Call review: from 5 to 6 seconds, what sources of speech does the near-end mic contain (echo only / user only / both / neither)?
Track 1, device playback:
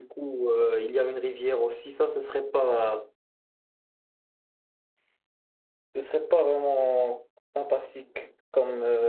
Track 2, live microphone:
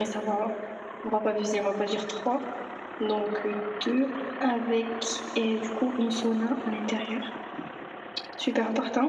user only